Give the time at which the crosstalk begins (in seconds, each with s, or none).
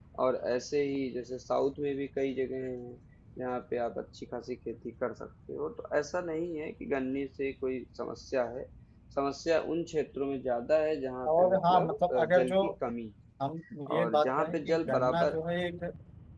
11.3 s